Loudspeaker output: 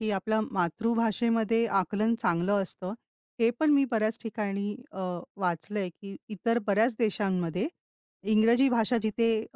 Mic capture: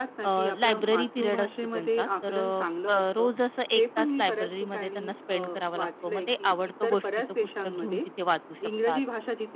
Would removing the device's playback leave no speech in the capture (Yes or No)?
No